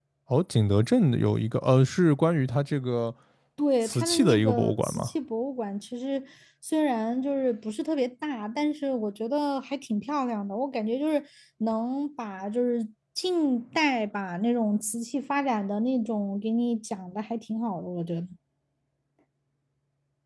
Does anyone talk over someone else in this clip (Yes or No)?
Yes